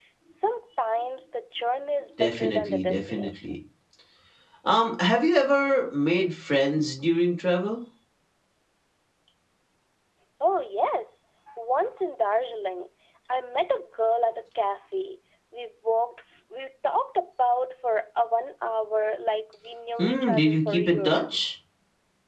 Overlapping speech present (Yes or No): Yes